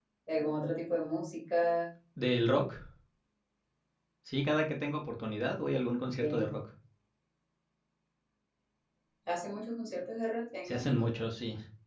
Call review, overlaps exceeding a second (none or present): none